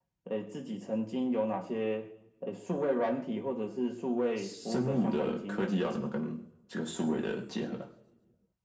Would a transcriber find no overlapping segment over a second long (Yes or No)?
No